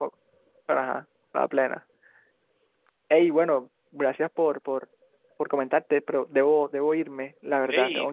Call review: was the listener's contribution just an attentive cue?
No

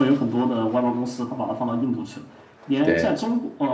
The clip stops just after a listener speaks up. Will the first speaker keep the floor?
Yes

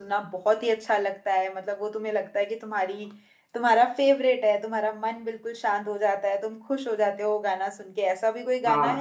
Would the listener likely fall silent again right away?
No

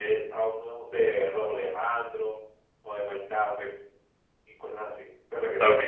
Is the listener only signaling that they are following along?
No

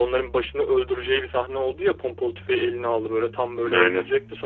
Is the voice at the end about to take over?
No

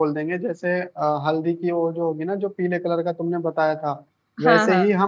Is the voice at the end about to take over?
No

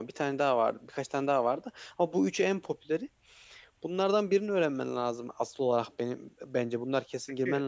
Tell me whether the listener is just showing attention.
Yes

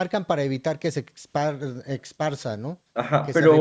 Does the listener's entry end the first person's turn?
Yes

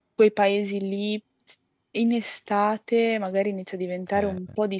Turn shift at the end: No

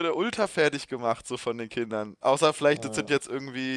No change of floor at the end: Yes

